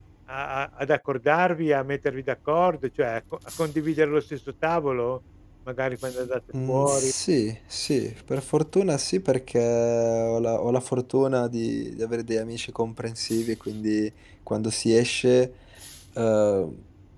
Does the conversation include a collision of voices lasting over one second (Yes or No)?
No